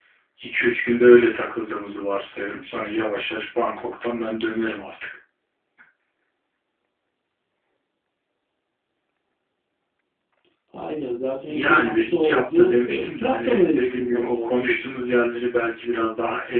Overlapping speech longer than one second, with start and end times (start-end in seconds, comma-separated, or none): 11.5-15.0